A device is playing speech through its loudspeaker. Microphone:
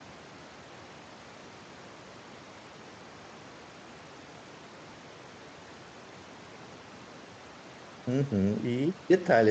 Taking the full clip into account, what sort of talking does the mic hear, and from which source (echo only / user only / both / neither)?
user only